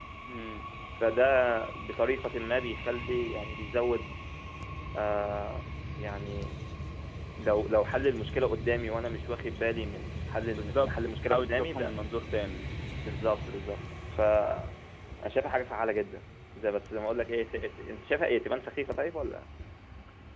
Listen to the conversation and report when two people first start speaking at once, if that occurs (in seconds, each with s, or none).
10.5 s